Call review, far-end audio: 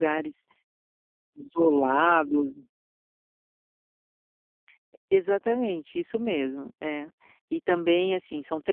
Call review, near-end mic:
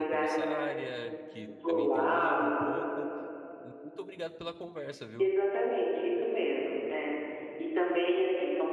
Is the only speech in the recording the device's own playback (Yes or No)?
No